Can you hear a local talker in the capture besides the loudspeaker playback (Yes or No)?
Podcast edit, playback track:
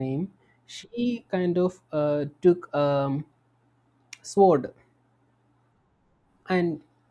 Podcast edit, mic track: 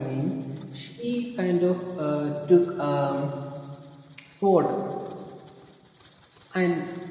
No